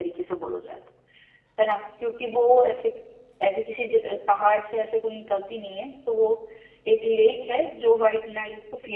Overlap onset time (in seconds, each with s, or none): none